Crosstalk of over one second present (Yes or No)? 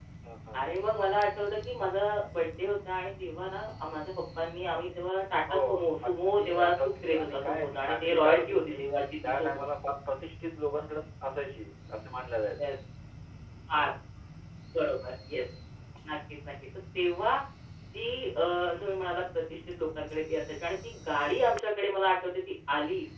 Yes